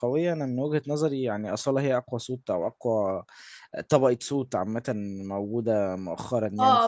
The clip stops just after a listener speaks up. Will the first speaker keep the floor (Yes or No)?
No